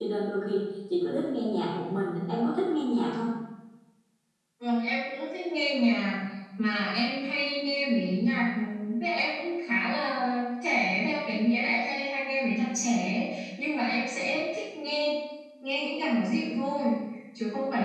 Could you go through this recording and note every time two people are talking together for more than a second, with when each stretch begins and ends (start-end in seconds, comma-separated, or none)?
none